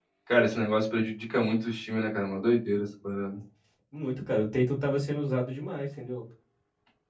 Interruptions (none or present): none